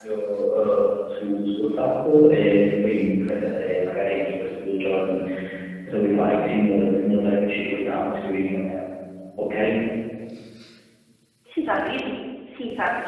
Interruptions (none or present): none